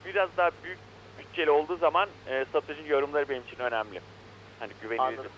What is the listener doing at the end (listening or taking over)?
taking over